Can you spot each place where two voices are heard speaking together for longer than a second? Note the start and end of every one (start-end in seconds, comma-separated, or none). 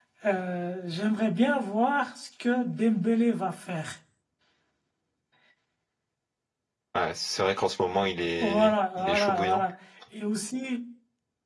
8.4-9.6